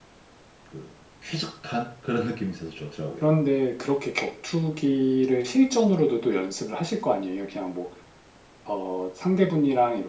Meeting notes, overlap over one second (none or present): none